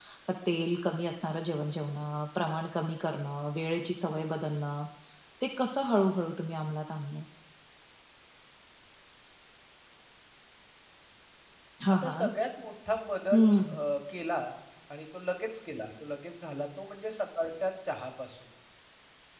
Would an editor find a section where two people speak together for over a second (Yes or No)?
No